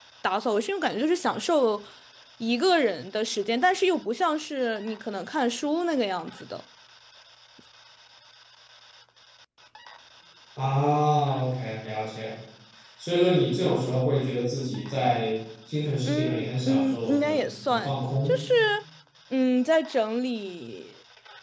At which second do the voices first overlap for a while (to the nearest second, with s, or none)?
16 s